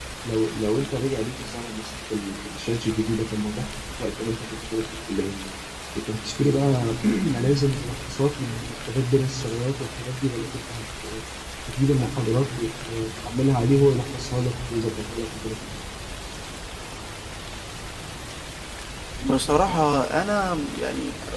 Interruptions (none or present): none